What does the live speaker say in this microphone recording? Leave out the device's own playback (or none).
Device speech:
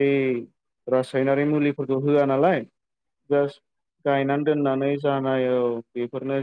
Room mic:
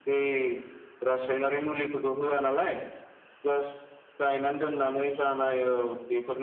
none